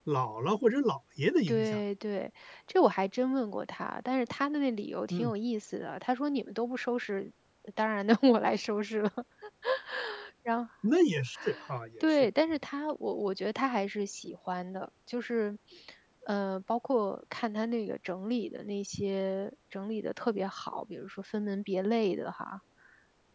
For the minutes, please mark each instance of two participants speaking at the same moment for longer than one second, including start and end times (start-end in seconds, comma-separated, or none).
none